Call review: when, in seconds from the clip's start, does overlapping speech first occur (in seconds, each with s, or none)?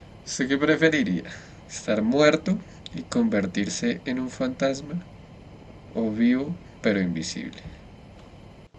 none